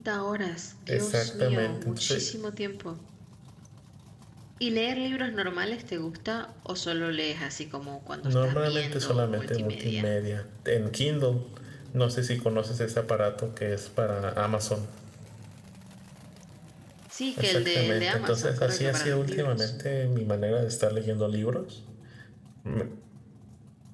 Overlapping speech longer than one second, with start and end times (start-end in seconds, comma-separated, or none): 0.9-2.2, 8.2-10.1, 17.4-19.7